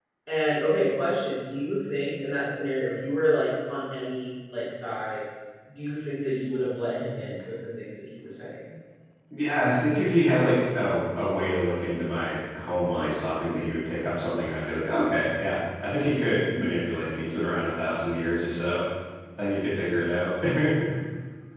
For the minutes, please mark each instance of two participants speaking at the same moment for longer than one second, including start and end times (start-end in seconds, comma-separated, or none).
none